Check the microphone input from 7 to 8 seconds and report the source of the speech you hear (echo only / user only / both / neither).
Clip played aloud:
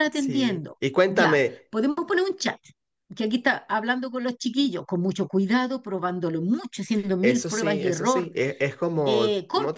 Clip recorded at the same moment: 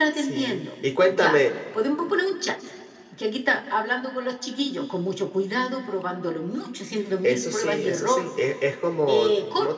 echo only